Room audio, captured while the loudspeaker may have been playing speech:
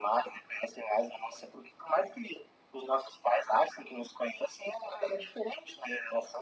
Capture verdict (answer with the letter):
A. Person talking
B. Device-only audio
B